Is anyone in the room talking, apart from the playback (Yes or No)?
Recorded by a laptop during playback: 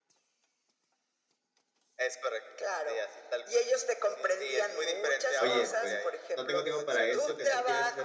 Yes